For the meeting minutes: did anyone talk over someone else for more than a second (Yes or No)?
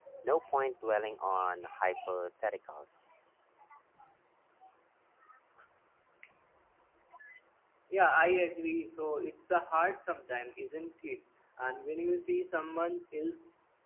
No